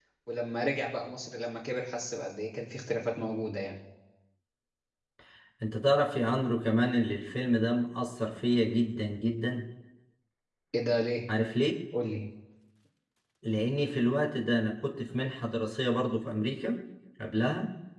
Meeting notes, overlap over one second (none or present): none